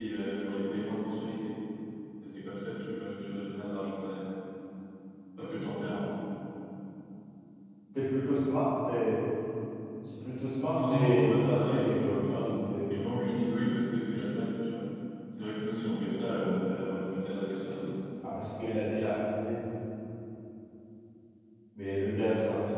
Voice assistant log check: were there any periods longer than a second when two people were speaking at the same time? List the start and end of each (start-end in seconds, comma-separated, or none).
10.7-12.4